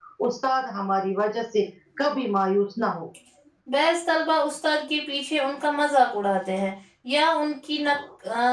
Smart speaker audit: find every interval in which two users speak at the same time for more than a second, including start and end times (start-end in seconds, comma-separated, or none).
none